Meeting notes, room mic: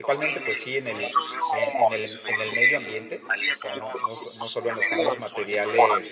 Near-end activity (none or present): present